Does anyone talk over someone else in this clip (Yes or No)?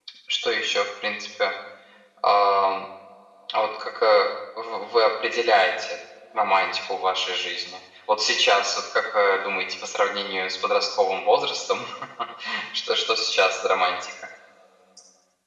No